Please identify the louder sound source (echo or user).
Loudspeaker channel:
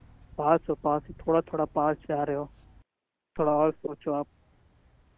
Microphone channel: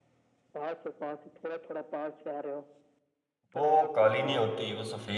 user